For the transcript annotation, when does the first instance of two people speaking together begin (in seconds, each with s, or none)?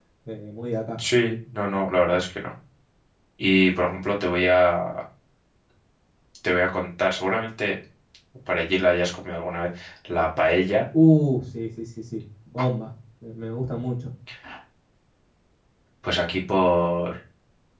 none